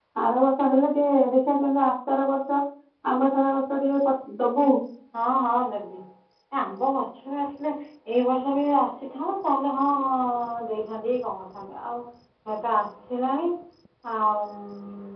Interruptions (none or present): none